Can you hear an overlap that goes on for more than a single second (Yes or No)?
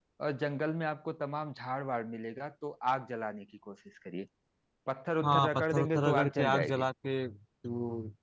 Yes